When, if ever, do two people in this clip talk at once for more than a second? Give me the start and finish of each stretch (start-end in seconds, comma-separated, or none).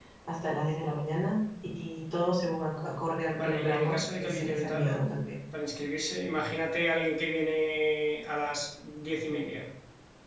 3.3-5.0